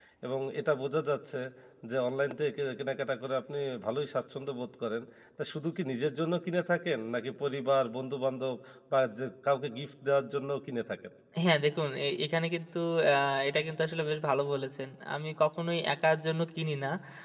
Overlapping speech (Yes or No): No